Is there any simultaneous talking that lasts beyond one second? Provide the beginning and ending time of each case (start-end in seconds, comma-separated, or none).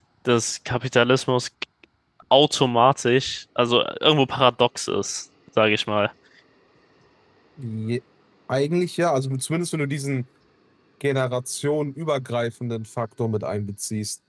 none